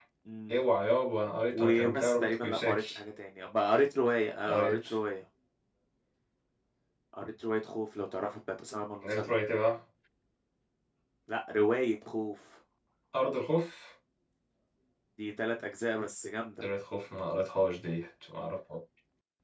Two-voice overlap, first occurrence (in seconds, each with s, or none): 1.5 s